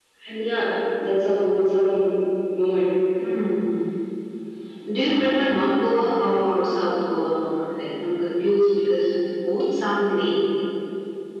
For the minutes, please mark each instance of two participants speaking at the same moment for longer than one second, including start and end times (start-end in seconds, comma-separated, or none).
none